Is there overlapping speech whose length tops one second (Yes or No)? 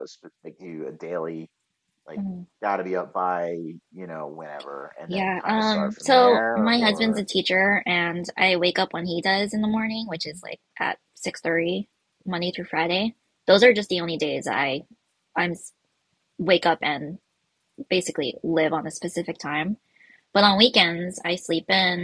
Yes